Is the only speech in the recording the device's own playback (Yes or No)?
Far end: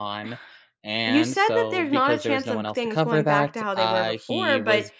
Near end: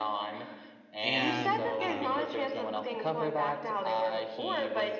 No